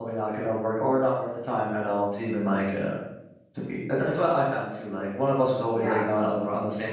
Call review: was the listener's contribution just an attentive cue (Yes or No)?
Yes